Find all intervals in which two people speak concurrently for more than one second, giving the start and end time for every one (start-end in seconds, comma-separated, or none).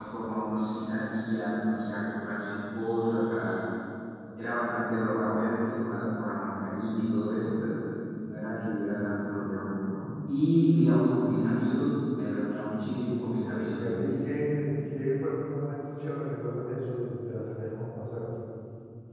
none